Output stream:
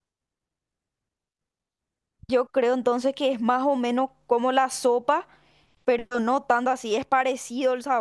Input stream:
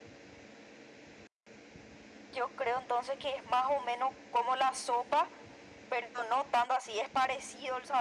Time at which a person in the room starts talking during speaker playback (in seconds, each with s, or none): none